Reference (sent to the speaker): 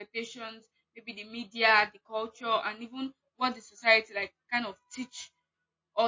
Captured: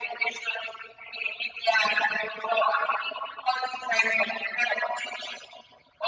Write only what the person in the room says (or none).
none